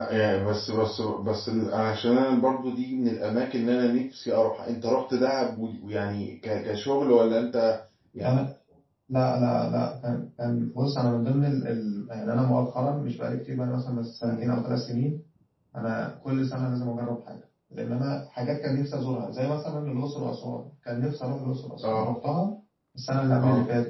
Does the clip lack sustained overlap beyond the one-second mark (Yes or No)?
Yes